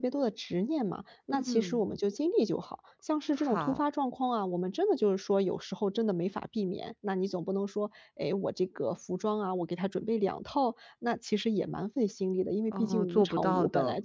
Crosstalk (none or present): present